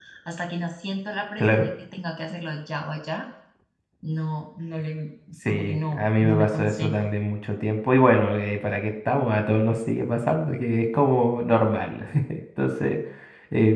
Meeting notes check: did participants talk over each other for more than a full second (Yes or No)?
Yes